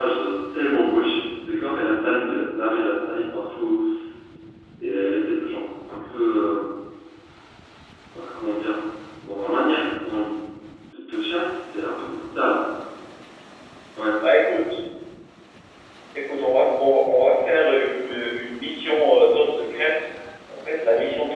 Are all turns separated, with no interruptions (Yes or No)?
Yes